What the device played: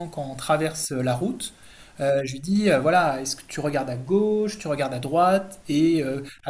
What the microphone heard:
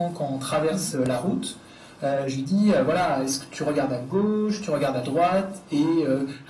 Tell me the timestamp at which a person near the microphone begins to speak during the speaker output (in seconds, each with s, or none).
0.7 s